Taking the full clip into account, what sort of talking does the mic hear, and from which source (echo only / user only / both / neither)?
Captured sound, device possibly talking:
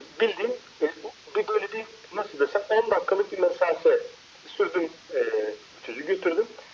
echo only